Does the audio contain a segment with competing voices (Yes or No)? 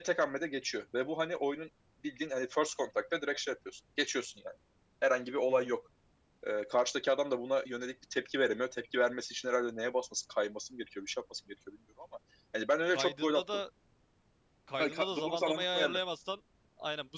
Yes